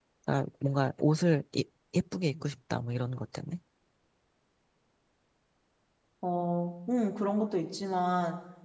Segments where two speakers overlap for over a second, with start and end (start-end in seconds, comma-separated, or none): none